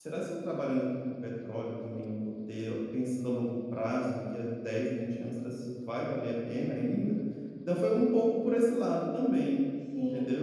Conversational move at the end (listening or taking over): taking over